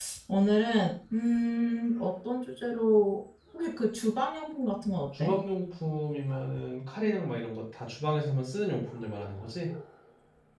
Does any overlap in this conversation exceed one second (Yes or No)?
No